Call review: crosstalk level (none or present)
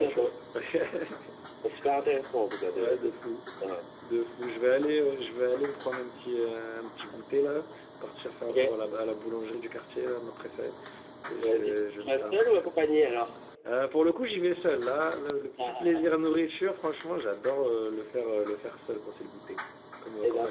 present